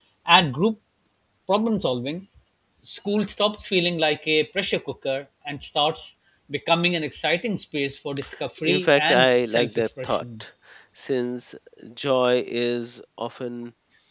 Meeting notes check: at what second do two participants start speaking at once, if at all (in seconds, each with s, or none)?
8.6 s